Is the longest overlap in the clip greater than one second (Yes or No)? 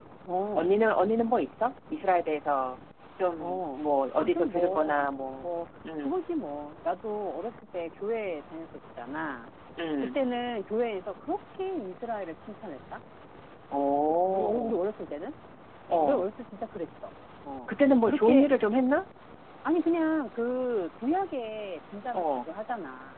Yes